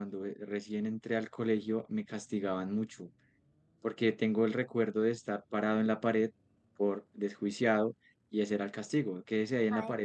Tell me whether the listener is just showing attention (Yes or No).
No